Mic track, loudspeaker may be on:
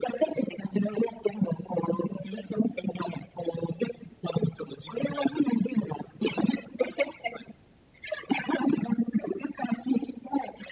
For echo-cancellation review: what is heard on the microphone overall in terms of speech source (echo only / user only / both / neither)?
echo only